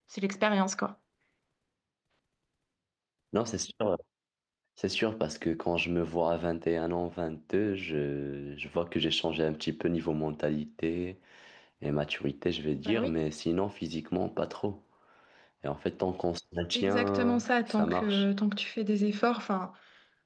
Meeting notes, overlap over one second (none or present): present